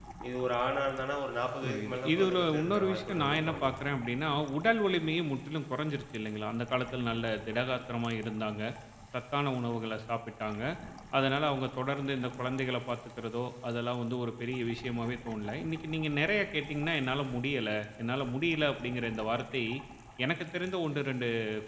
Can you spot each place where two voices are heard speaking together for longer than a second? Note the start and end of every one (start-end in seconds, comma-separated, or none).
1.6-3.8